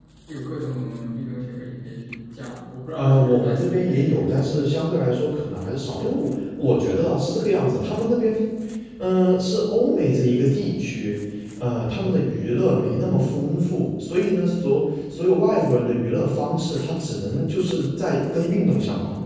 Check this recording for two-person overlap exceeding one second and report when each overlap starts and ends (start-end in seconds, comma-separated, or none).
3.0-4.7